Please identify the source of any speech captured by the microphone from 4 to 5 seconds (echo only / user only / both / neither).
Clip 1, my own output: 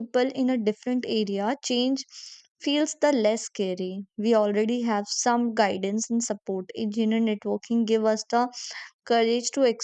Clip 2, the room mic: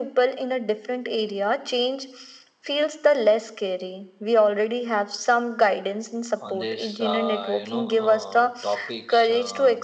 echo only